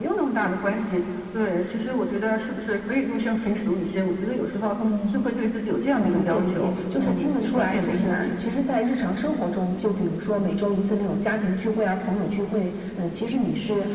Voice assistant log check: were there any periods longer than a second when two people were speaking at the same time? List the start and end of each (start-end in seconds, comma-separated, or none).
6.0-8.3